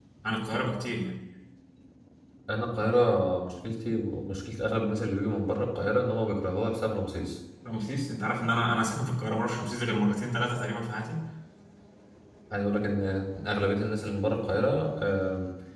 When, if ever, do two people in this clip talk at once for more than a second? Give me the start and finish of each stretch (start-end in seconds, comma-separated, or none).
none